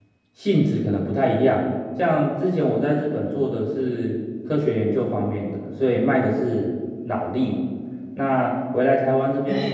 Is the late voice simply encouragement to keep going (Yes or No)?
Yes